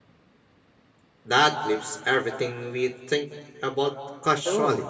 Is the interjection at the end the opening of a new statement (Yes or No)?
Yes